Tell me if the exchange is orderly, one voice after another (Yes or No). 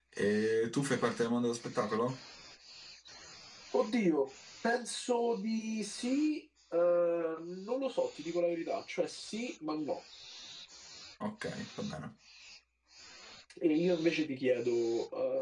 Yes